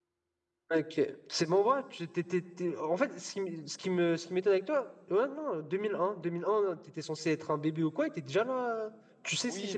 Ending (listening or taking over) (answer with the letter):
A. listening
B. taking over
B